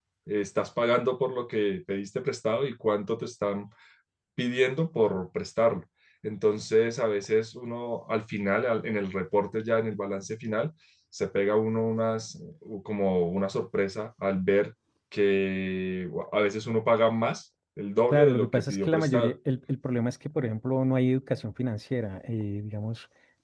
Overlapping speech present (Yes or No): Yes